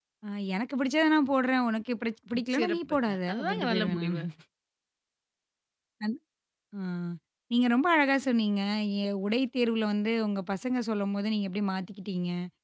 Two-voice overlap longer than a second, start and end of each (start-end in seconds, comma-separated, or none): 2.5-4.2